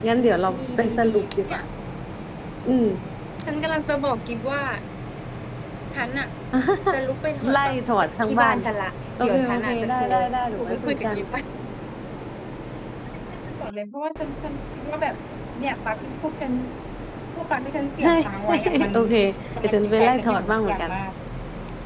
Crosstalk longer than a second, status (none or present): present